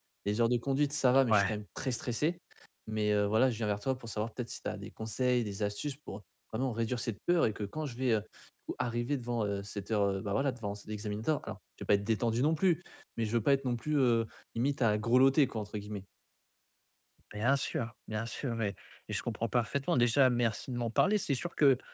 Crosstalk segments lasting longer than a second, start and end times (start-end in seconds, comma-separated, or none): none